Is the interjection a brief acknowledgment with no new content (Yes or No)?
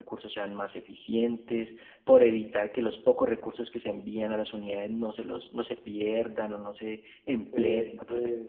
No